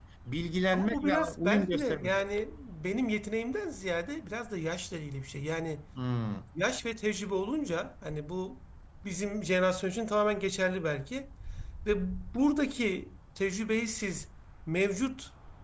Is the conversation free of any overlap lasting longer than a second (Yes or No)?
No